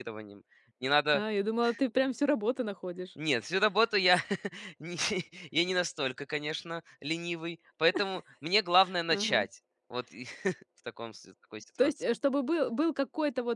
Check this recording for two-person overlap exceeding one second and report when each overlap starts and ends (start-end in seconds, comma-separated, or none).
none